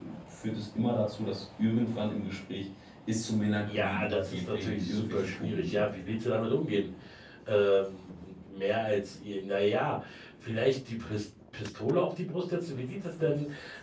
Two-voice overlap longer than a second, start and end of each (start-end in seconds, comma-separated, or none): 3.7-5.9